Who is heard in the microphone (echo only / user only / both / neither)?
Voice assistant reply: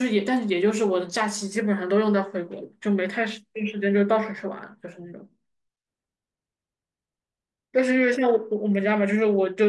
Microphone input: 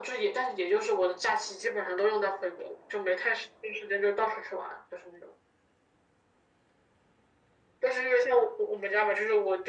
echo only